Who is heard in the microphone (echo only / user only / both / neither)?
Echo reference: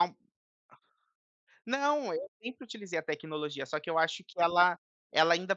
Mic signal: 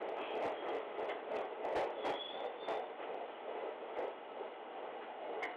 neither